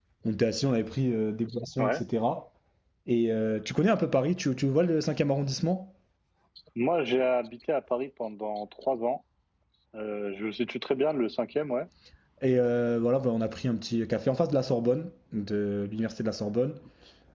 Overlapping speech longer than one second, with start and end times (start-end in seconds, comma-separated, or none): none